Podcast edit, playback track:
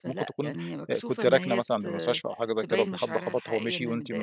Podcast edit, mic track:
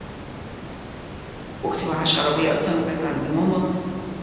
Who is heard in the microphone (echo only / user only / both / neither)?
user only